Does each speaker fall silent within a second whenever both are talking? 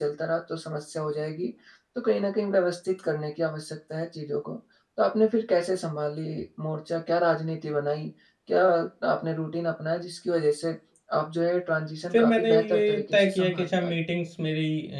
No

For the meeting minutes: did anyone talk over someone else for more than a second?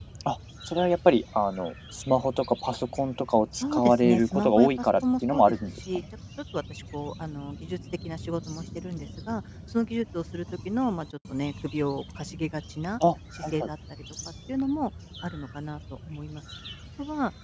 Yes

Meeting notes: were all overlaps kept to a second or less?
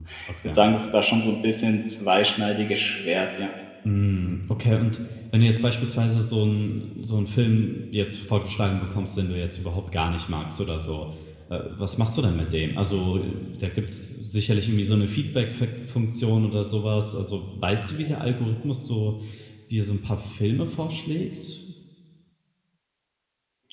Yes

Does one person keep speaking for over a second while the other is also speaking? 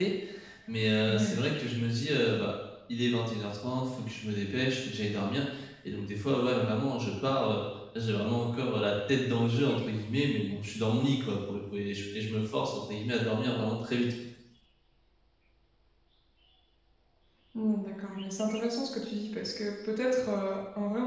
No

